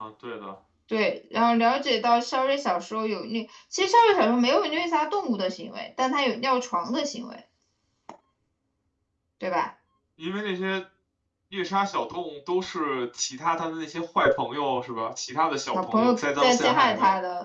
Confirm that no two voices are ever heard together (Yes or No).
No